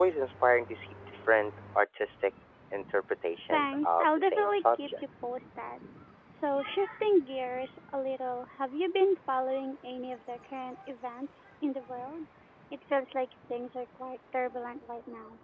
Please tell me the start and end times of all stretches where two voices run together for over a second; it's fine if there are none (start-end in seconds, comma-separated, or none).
3.5-4.9